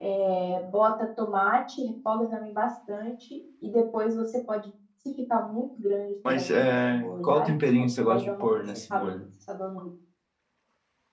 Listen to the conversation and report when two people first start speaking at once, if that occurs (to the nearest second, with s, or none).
6 s